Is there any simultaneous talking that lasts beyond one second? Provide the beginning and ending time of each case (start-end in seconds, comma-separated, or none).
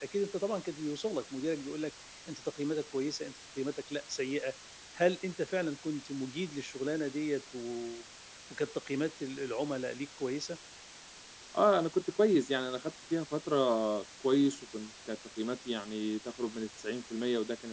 none